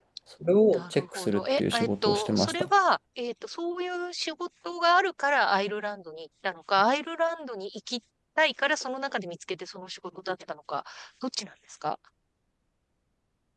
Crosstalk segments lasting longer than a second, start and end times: 0.7-2.7

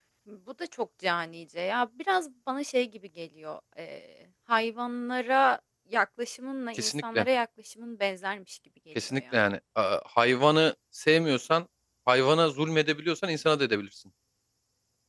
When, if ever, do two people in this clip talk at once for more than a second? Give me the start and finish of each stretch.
none

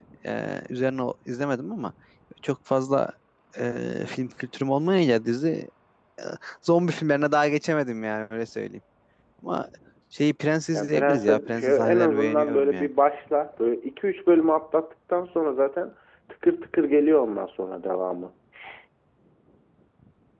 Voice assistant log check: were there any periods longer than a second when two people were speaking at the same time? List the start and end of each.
10.7-12.9

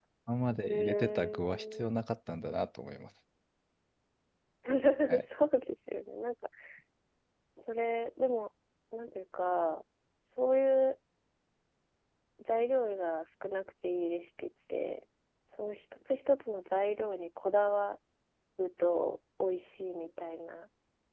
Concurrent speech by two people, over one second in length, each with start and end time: 0.7-1.9

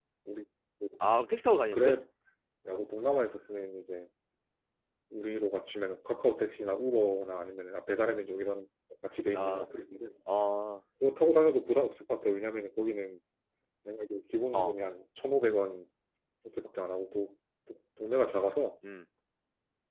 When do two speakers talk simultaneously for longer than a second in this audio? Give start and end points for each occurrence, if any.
none

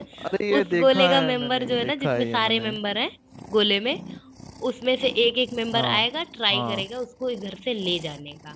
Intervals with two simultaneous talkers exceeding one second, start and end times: 0.6-2.7

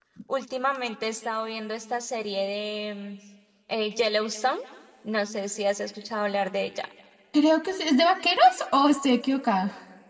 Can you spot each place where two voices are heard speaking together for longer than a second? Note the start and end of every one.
none

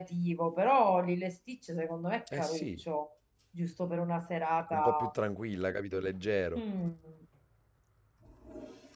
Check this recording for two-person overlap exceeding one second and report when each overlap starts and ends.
none

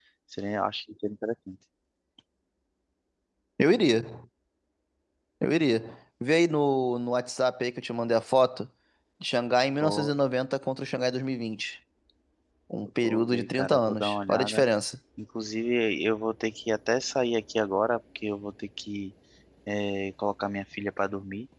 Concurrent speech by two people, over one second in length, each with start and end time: 13.0-14.6

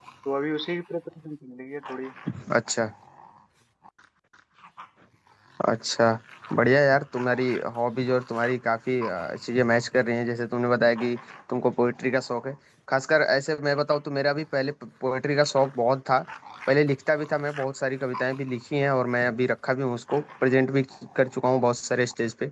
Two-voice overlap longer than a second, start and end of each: none

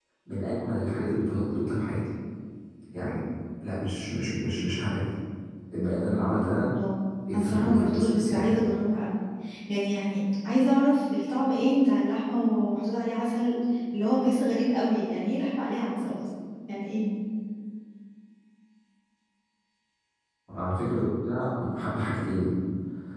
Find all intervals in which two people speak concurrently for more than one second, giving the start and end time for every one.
7.3-8.5

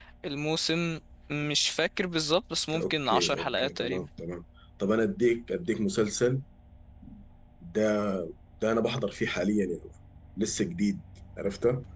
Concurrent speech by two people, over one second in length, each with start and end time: 2.8-4.1

